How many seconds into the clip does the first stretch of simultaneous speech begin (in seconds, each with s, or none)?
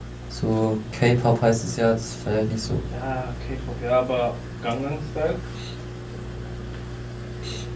none